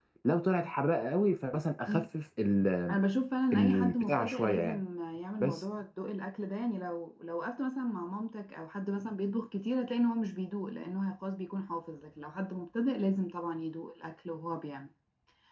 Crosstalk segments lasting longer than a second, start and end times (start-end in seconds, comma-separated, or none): 3.5-4.8